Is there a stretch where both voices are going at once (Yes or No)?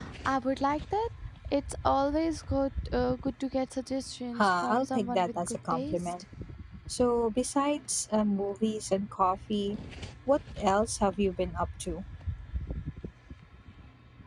Yes